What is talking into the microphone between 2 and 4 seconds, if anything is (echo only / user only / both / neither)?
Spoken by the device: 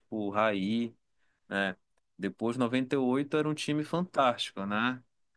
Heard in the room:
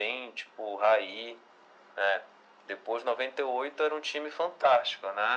echo only